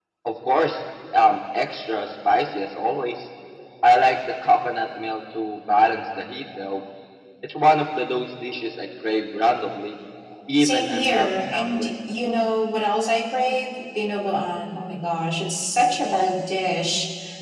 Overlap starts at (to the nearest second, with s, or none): 11 s